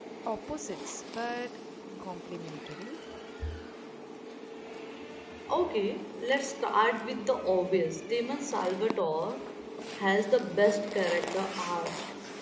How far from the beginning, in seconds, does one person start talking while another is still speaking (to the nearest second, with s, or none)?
none